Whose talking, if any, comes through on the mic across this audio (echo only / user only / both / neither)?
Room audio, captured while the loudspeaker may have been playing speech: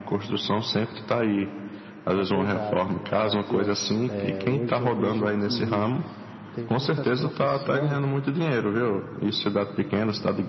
both